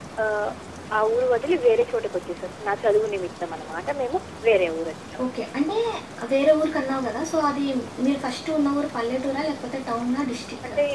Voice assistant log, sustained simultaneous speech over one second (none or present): none